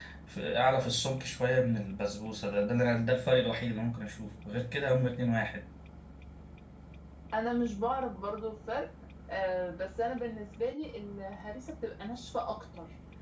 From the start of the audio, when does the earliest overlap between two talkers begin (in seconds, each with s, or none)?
none